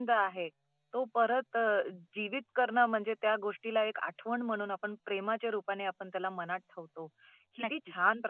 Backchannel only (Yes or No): Yes